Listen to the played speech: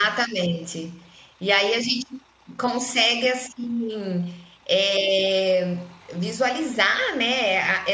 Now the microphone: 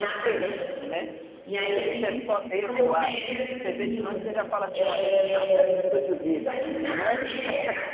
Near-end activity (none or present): present